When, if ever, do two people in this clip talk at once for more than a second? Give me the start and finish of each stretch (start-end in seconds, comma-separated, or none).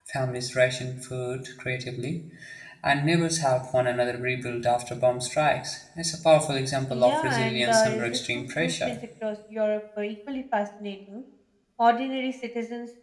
6.9-9.0